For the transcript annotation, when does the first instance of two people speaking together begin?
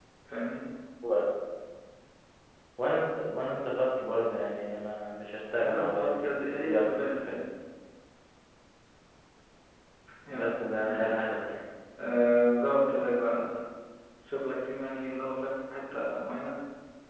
5.6 s

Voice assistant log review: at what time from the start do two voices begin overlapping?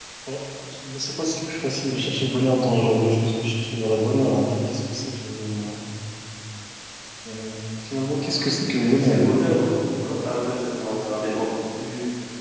8.3 s

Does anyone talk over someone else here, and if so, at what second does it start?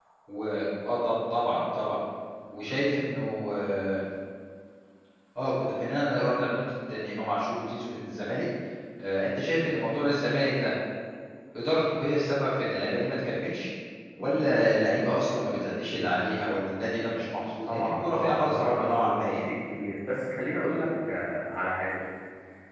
17.7 s

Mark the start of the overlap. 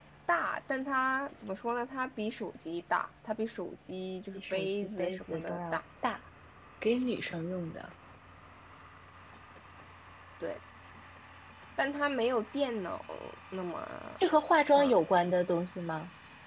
4.3 s

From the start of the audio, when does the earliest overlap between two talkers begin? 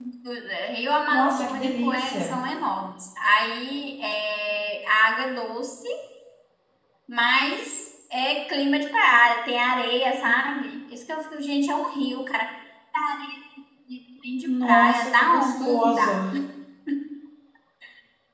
1.1 s

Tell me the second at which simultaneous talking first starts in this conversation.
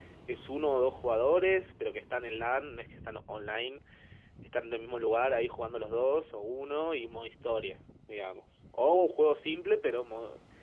none

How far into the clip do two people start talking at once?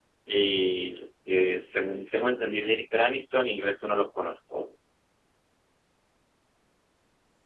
none

